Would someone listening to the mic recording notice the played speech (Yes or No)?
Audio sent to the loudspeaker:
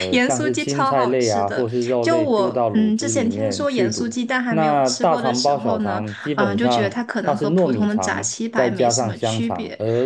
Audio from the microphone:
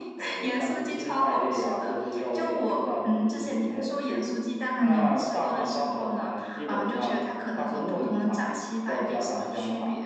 Yes